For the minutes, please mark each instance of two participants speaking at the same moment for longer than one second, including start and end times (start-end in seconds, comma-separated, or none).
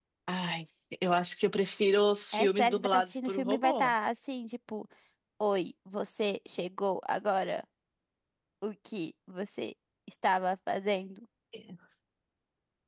2.3-3.9